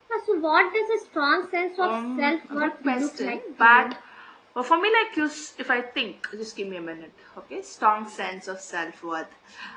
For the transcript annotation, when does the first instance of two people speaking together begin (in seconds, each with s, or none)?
1.8 s